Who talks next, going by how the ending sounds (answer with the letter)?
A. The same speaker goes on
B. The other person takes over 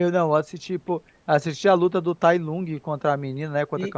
B